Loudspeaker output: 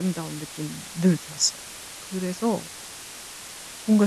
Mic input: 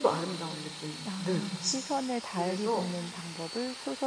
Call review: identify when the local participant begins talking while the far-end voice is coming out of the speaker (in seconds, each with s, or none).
1.0 s